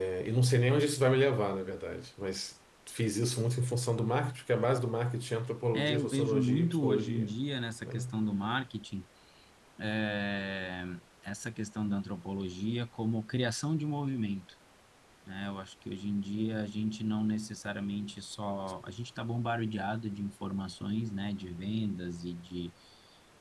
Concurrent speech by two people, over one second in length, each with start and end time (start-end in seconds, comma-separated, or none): 5.7-7.4